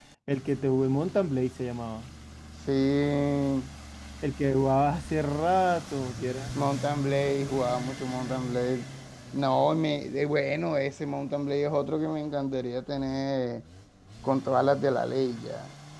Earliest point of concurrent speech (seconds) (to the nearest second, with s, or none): none